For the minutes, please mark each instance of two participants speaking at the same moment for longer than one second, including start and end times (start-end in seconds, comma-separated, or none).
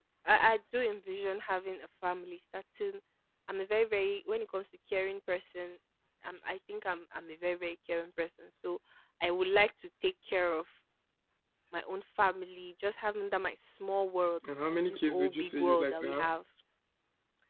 14.7-16.3